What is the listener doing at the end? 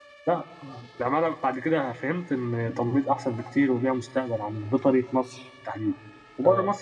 listening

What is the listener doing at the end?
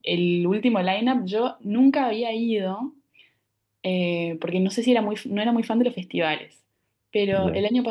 listening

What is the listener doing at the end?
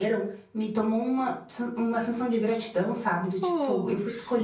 listening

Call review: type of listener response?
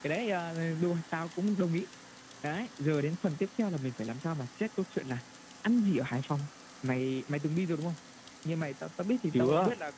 listening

